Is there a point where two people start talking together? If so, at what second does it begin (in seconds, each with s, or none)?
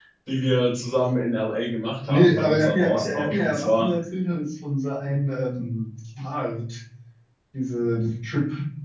2.1 s